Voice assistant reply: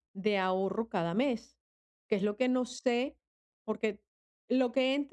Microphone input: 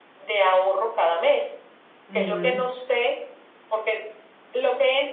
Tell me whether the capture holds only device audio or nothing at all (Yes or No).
No